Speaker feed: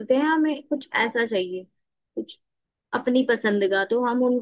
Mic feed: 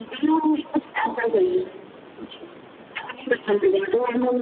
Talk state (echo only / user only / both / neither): echo only